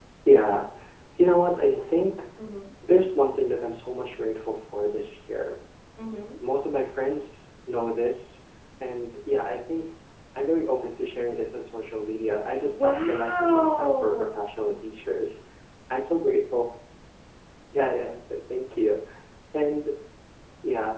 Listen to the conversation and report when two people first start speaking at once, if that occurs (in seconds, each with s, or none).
12.6 s